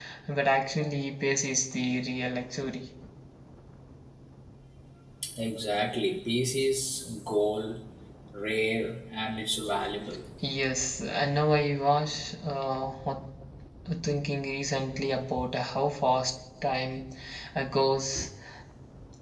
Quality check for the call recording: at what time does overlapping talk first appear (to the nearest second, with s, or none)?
none